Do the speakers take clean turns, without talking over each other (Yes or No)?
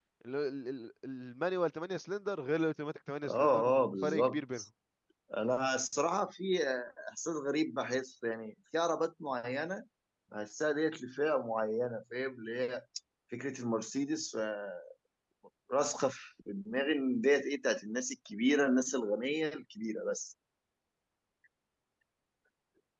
No